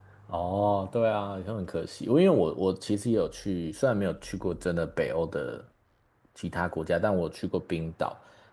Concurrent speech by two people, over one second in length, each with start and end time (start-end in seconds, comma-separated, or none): none